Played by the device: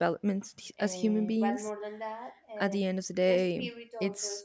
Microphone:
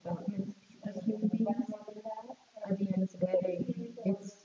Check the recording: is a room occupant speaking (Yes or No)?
No